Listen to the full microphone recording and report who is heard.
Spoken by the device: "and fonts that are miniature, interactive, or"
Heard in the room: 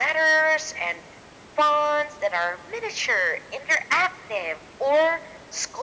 echo only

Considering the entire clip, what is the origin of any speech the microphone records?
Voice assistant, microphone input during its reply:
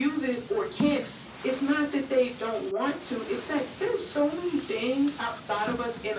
echo only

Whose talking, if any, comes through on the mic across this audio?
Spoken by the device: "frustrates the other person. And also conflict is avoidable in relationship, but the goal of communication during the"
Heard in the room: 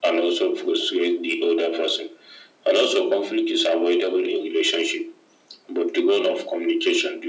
echo only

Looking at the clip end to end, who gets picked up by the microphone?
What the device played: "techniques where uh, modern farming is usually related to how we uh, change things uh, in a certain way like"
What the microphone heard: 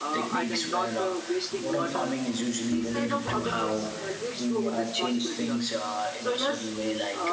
both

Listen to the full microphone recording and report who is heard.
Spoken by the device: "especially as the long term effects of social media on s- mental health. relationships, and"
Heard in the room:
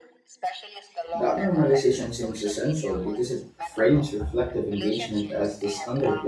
both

